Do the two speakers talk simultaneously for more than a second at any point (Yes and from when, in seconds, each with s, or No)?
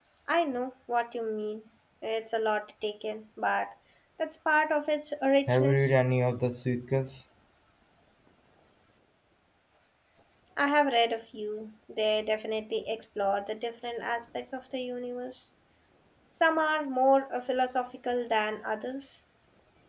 No